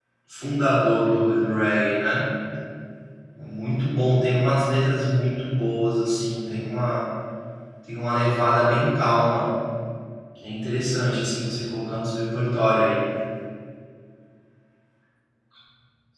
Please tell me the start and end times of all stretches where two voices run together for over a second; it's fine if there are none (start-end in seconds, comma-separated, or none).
none